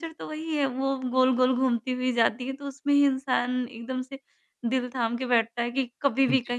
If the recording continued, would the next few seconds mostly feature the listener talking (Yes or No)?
No